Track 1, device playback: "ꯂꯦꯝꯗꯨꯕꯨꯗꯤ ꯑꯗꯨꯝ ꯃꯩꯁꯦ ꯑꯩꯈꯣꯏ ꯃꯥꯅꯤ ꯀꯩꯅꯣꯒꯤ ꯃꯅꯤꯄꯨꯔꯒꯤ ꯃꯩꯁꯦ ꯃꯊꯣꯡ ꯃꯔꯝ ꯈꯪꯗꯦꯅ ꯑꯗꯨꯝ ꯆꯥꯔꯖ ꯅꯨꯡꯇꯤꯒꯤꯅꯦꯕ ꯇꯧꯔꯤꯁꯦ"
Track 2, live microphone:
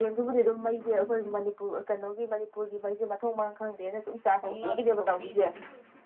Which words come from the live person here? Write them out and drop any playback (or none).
ꯊꯧꯅꯗ꯭ꯔꯤꯐꯥꯎ ꯄꯤꯗꯕꯅꯤ